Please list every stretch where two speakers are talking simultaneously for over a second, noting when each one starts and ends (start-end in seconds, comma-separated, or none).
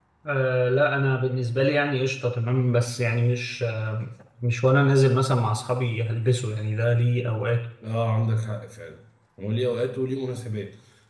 none